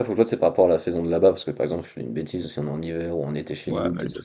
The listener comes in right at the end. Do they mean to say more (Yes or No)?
Yes